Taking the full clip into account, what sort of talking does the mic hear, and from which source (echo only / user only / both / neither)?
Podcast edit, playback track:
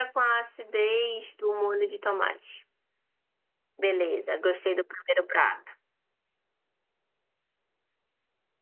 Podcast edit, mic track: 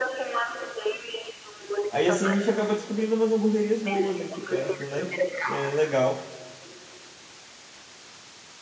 both